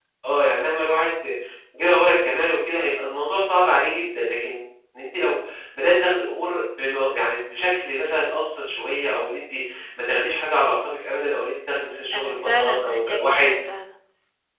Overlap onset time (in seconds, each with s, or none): 12.1 s